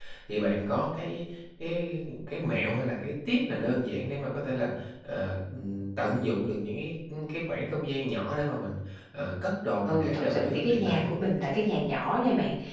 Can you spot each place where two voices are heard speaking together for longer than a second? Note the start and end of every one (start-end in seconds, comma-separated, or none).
9.8-11.1